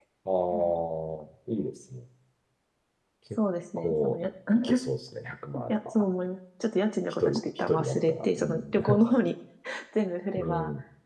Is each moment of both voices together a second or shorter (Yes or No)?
No